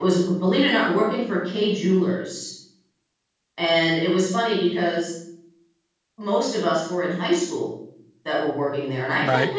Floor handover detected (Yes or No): No